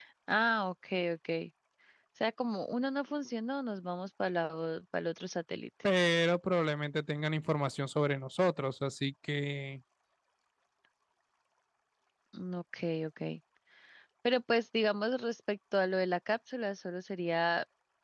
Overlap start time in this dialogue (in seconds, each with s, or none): none